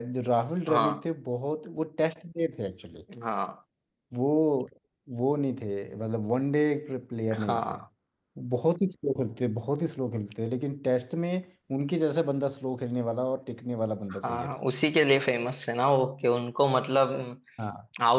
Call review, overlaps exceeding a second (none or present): none